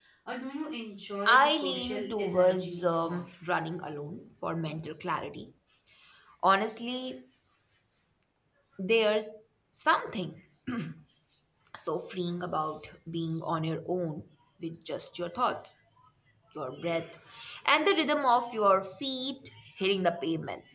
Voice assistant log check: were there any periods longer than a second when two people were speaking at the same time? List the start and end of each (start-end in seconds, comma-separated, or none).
1.3-2.7